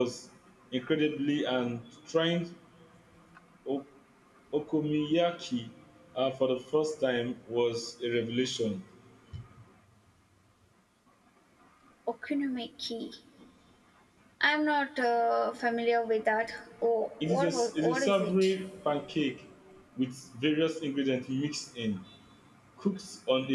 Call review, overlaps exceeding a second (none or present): present